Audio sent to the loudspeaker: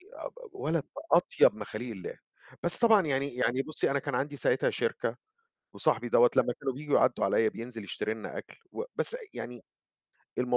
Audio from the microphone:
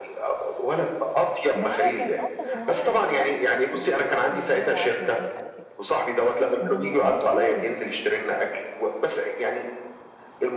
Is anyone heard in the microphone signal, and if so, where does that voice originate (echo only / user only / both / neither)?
both